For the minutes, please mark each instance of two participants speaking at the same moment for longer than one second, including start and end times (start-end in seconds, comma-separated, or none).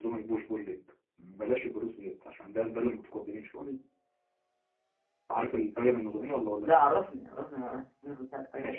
none